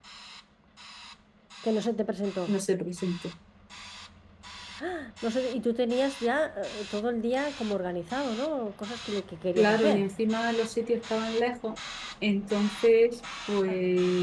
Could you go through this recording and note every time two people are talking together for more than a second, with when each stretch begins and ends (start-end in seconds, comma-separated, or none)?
none